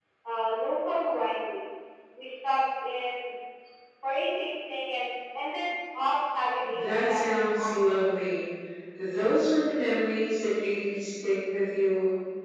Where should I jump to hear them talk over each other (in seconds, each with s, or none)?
6.6 s